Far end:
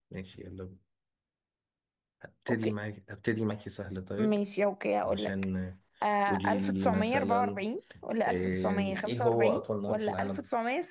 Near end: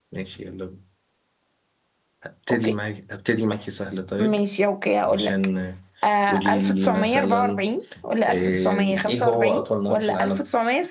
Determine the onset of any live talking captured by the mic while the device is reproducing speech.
none

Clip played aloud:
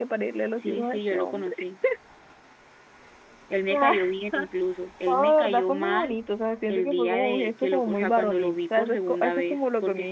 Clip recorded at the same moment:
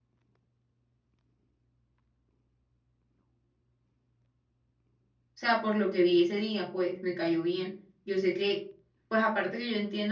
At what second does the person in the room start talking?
5.3 s

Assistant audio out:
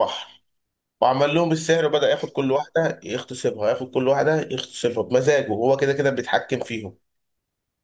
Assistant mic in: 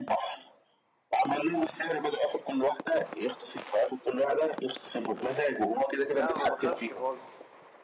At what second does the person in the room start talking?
6.1 s

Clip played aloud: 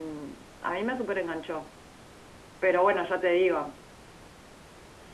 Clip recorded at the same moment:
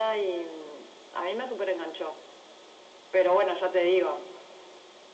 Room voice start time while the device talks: none

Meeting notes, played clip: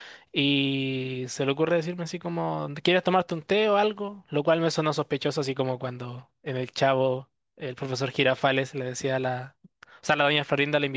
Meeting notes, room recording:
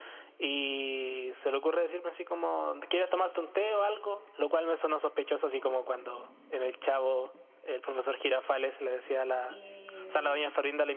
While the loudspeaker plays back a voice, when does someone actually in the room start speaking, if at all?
9.4 s

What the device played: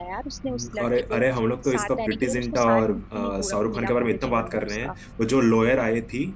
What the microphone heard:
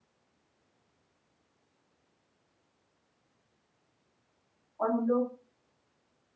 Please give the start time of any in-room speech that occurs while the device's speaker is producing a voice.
4.8 s

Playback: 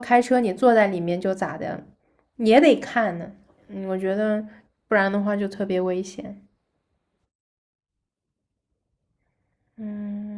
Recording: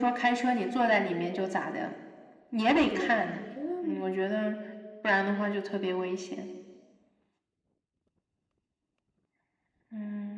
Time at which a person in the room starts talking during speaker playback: 2.8 s

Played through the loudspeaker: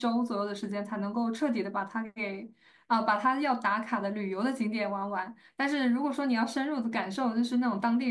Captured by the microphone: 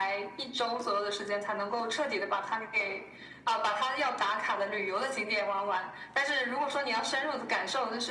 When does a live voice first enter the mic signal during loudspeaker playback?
none

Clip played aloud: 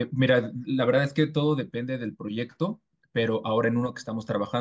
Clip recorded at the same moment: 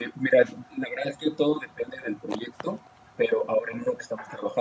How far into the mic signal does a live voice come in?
none

